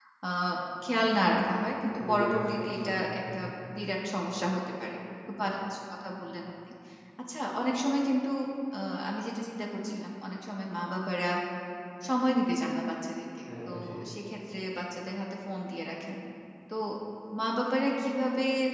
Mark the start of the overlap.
2 s

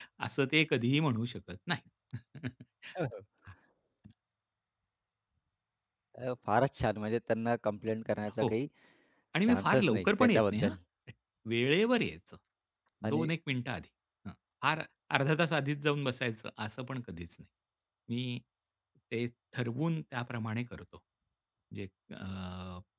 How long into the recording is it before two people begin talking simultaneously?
9 s

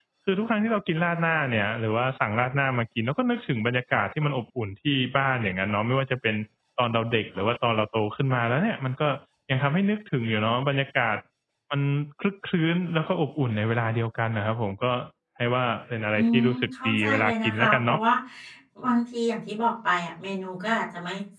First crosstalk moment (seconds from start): 16 s

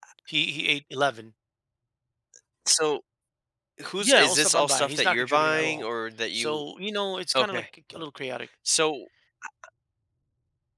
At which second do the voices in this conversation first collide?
4 s

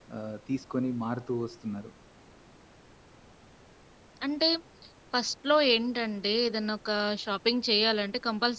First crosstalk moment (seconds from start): none

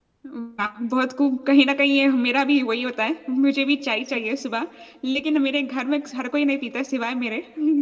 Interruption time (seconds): none

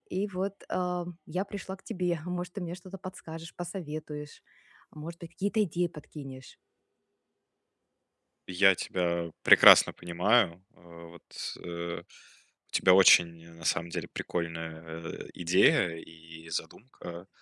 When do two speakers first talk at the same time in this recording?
none

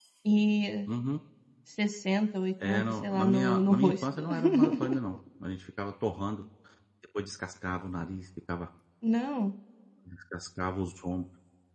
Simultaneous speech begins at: 3 s

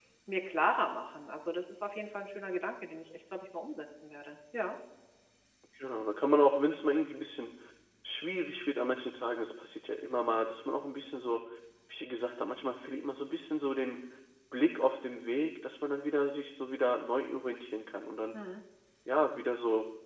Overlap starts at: none

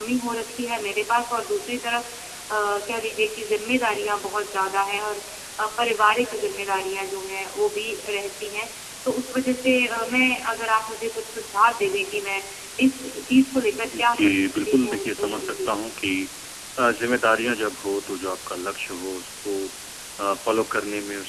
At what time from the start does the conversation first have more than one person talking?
14 s

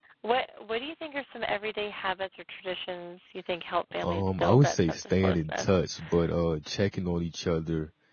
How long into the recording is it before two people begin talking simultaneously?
4 s

